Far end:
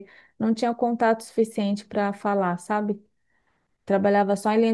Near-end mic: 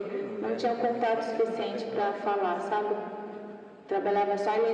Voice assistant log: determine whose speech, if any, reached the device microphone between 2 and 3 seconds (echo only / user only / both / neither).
both